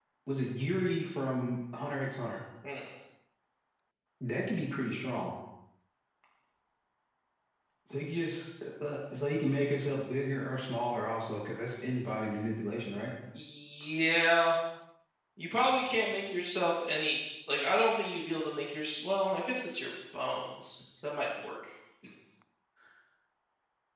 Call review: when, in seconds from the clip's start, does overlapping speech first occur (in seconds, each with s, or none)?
none